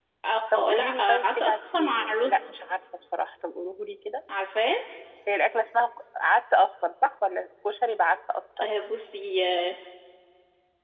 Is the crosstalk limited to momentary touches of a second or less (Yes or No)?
No